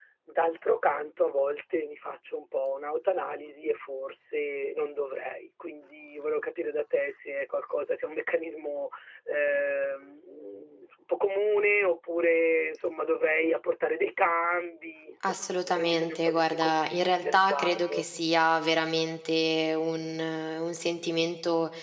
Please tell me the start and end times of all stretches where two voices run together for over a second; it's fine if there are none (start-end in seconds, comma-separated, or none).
15.2-18.0